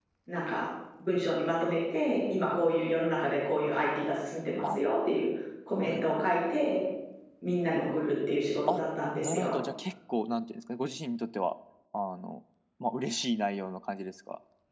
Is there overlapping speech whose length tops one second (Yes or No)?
No